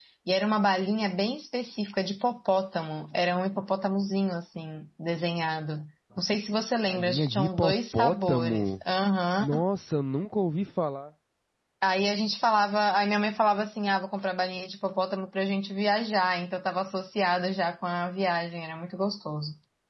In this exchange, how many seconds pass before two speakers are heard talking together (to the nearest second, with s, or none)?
7 s